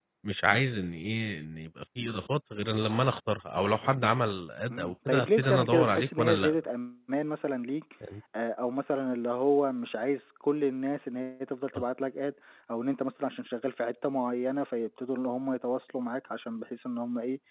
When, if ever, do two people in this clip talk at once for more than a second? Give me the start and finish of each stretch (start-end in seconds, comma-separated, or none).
4.7-6.6